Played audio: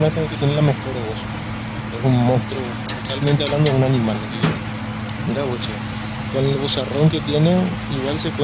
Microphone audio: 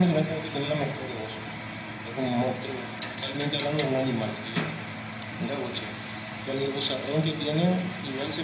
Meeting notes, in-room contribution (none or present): none